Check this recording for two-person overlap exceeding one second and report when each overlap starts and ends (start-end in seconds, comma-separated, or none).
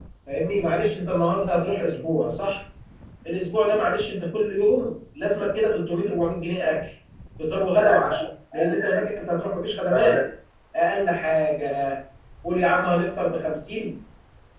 7.8-9.1